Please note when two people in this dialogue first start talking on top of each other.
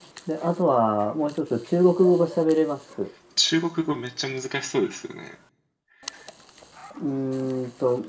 none

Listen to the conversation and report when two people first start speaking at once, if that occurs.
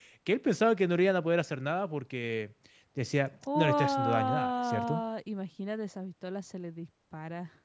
3.5 s

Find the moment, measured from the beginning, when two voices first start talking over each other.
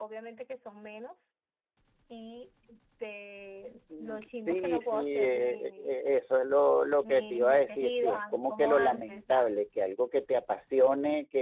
4.0 s

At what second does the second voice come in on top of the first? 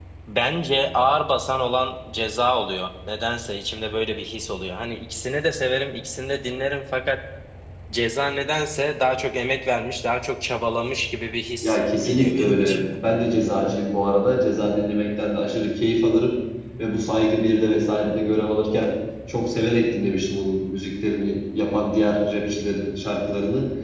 11.6 s

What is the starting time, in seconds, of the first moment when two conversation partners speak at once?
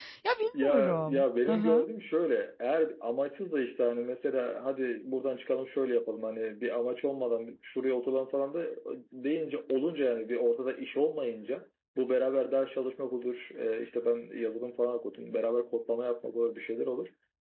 0.6 s

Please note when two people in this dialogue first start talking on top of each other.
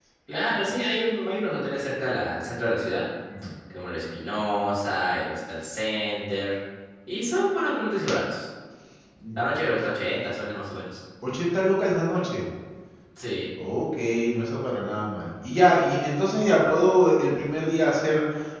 none

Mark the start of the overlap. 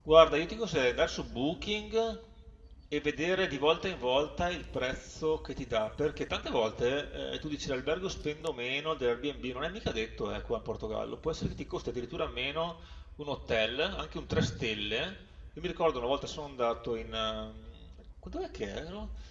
none

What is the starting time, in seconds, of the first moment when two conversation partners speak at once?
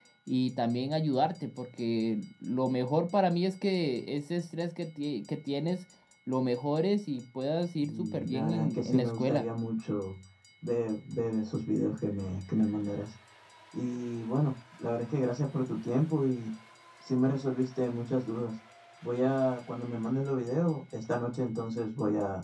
7.8 s

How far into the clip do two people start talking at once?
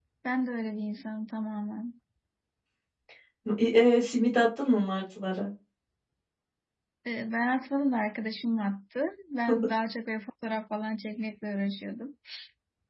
none

